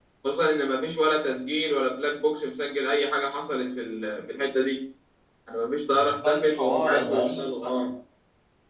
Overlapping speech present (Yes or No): Yes